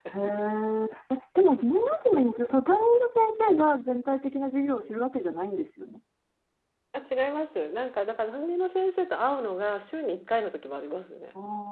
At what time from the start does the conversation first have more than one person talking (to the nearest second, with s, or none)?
none